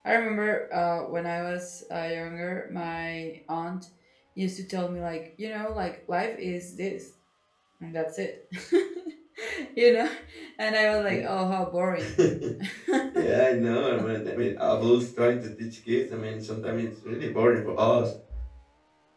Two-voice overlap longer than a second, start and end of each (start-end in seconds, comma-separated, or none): none